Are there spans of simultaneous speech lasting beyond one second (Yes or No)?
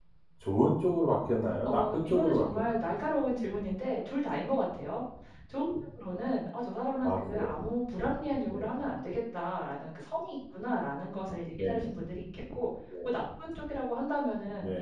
Yes